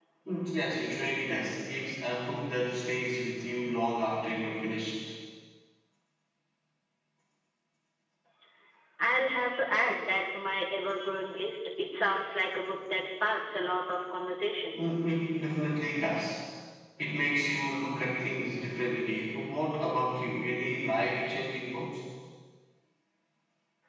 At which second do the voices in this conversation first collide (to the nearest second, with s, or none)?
none